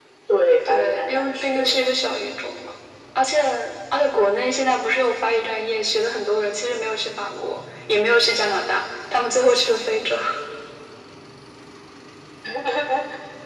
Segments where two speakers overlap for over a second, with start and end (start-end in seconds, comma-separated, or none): 0.7-1.9